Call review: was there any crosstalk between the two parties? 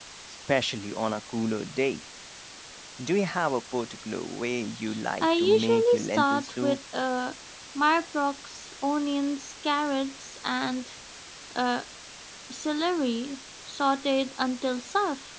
Yes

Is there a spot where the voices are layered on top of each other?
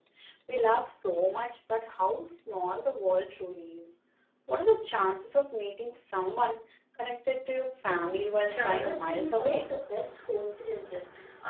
Yes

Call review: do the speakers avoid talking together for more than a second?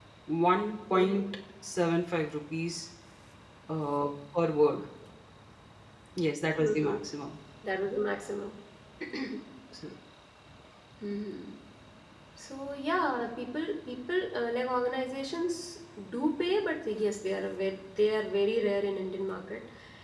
Yes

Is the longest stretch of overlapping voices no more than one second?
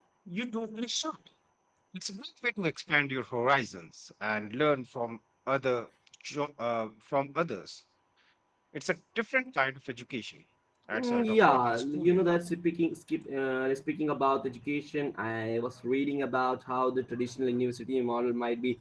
No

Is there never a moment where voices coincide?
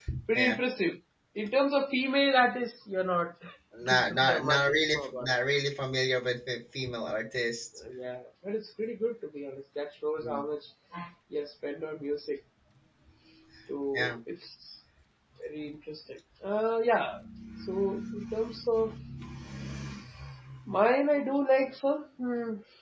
No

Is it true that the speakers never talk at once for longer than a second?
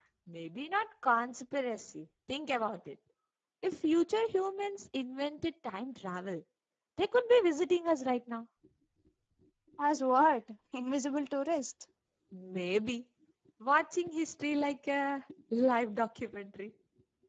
Yes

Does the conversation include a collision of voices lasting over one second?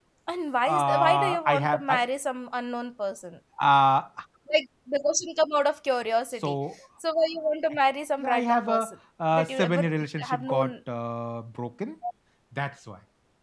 Yes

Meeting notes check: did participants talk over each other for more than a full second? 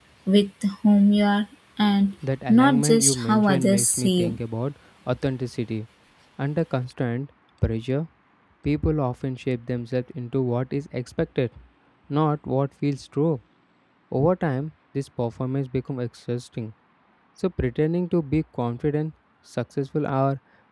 Yes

